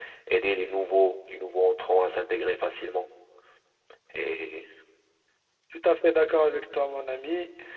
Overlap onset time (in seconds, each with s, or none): none